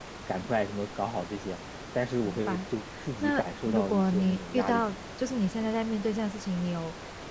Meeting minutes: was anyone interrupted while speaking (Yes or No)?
Yes